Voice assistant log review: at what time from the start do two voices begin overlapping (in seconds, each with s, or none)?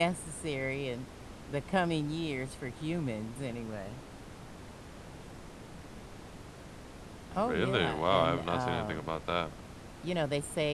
7.3 s